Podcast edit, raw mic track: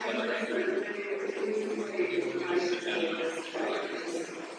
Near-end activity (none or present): present